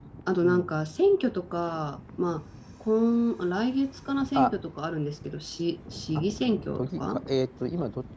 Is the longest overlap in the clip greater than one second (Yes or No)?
No